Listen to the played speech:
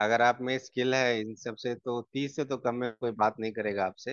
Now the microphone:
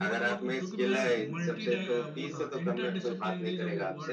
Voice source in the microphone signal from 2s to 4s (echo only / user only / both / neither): both